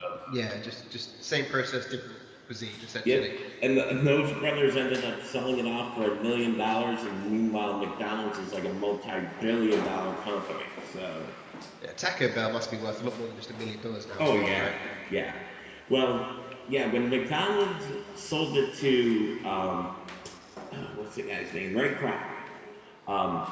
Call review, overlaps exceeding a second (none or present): none